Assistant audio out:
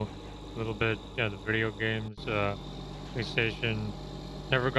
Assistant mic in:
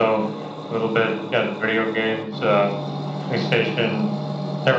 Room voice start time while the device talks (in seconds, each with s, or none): none